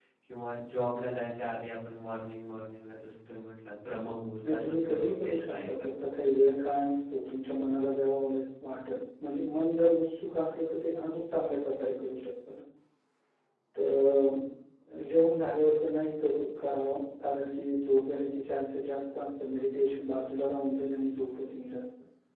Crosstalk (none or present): present